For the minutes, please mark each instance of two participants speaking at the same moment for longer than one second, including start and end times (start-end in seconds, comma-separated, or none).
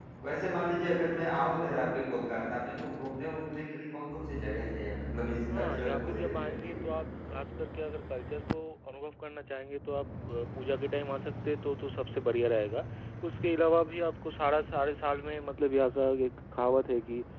5.5-6.8